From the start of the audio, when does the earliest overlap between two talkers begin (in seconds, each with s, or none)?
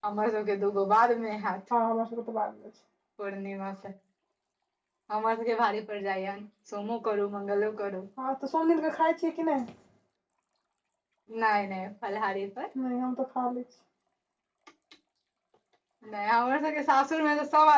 none